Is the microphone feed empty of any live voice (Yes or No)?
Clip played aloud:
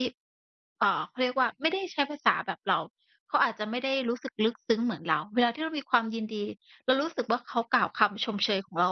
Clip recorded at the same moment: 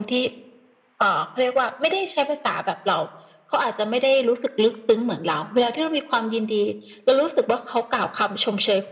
Yes